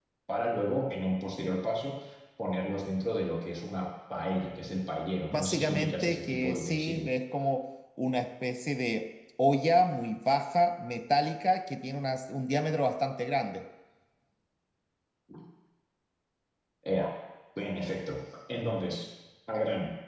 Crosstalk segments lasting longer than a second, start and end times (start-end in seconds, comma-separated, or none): 5.3-7.1